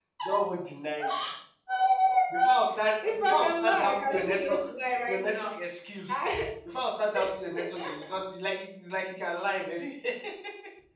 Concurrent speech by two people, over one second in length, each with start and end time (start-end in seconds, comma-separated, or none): 3.0-4.6